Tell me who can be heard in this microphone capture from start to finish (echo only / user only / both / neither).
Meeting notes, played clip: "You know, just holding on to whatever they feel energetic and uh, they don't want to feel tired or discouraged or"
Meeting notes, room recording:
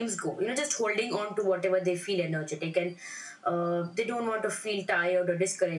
echo only